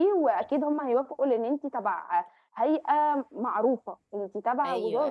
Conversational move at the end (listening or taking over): taking over